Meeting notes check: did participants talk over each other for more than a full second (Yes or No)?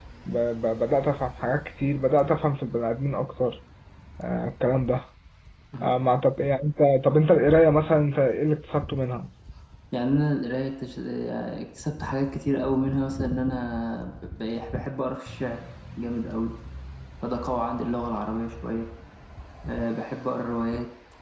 No